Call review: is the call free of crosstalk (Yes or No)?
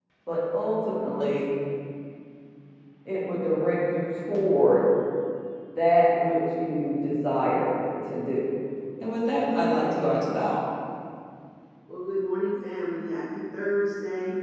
Yes